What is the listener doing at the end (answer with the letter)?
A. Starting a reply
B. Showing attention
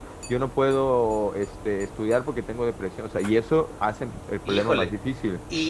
A